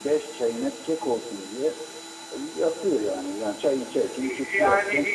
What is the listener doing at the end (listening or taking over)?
taking over